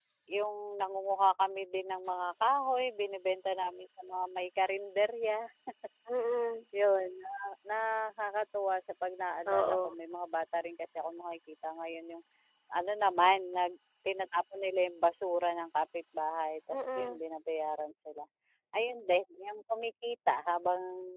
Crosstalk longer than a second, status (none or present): none